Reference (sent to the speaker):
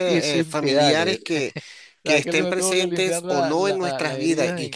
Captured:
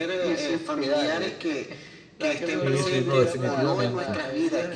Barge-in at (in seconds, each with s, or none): 2.6 s